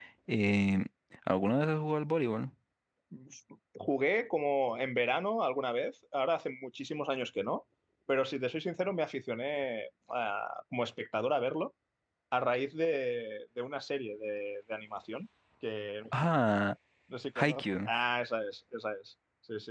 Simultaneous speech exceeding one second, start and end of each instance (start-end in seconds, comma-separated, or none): none